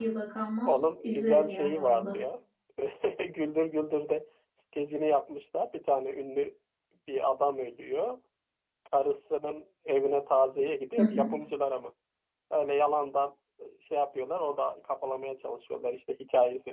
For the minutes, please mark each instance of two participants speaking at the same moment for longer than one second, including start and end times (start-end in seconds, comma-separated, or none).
0.7-2.1